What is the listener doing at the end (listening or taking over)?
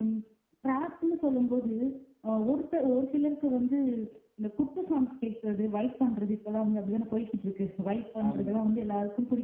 listening